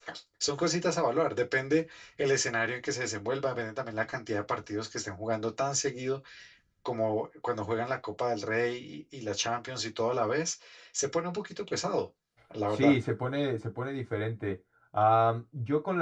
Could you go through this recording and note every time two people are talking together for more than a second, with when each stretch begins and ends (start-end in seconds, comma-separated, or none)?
none